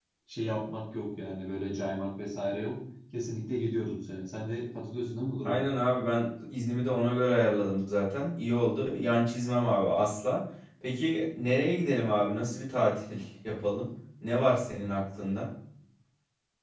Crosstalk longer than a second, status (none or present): none